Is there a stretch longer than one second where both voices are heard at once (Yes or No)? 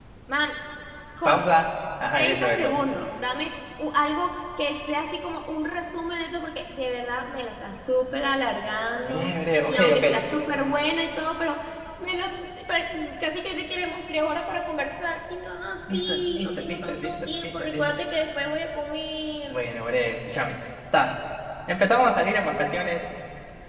Yes